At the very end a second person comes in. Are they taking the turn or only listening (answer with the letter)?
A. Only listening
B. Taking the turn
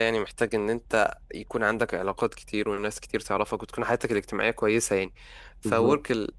A